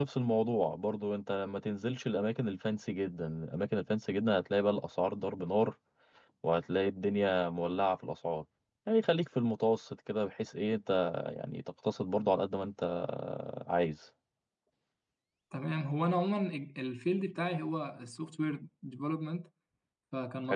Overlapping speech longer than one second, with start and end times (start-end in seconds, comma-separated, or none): none